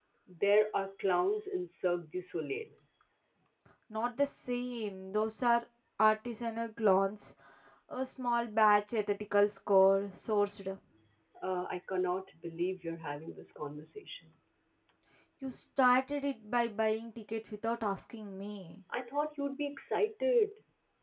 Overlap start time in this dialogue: none

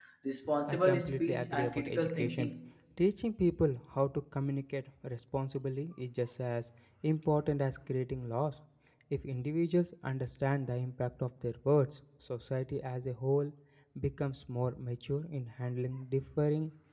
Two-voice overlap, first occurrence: 0.7 s

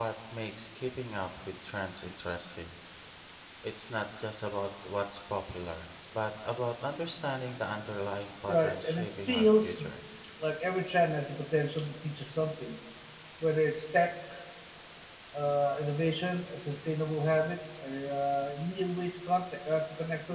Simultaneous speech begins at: 8.5 s

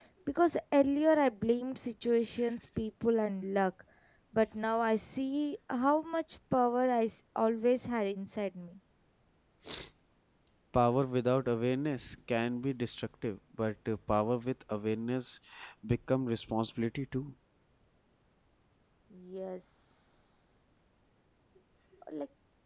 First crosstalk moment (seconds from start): none

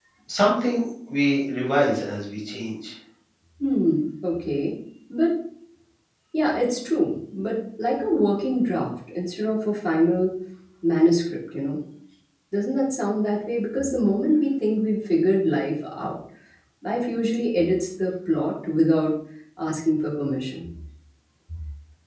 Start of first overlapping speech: none

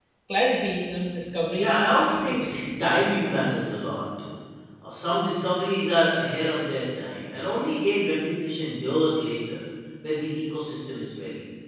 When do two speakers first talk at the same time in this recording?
1.6 s

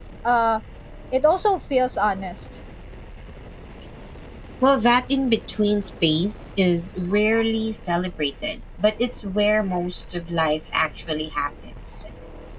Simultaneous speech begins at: none

